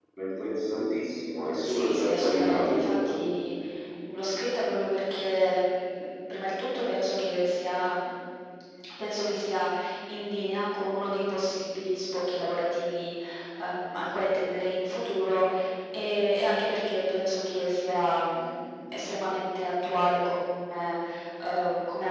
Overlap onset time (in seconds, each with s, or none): 1.6 s